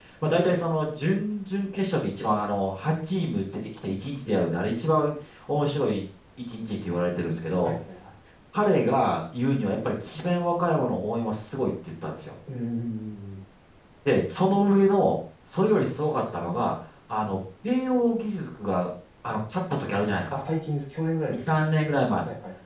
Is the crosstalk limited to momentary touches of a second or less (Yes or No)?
Yes